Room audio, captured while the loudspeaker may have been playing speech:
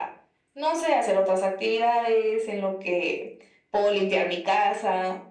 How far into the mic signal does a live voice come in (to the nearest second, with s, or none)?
none